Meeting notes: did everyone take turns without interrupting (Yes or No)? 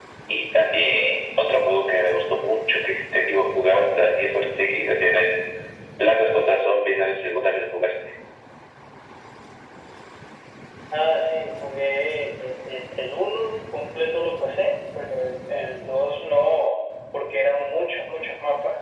Yes